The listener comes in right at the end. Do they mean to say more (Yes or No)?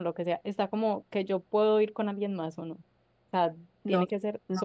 Yes